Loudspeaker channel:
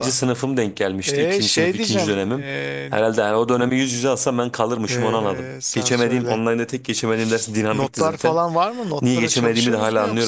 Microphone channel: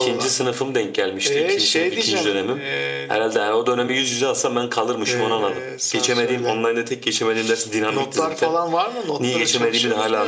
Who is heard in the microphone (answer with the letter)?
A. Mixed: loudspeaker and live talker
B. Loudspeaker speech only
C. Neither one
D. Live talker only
B